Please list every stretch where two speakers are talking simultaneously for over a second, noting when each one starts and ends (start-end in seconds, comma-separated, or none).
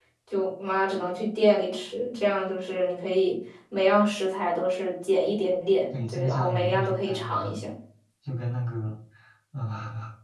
5.9-7.7